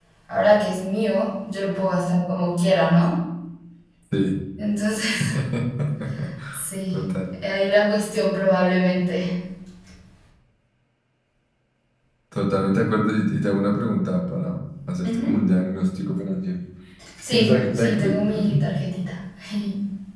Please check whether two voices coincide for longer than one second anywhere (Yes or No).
Yes